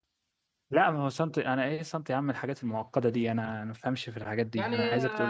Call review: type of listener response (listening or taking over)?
taking over